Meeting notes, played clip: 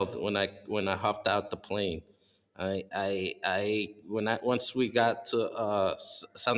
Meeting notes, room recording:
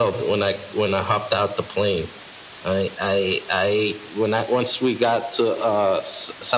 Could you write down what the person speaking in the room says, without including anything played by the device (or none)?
none